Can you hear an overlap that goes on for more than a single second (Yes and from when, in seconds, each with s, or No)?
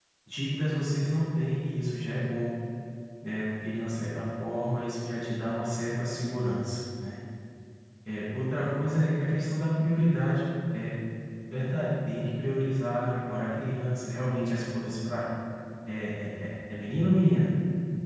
No